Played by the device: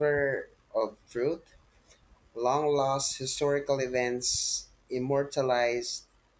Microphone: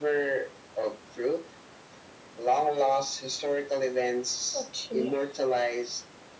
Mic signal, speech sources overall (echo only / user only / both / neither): both